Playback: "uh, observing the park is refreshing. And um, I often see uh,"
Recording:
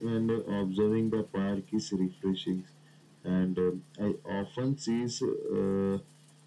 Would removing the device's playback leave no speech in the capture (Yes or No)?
Yes